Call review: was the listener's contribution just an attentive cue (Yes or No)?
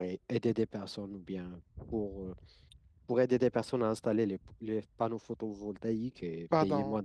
No